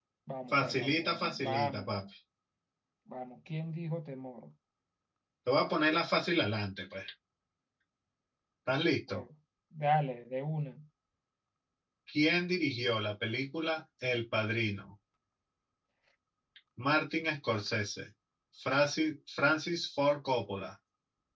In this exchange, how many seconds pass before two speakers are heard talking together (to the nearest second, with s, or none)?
1 s